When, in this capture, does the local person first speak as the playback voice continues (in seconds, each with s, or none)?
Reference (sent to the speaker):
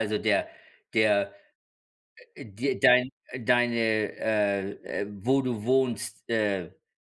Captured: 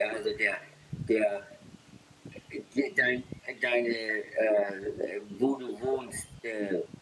none